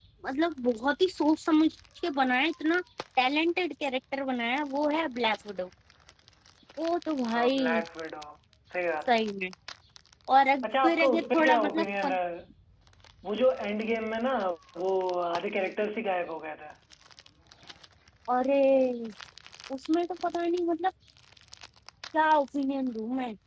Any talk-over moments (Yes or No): Yes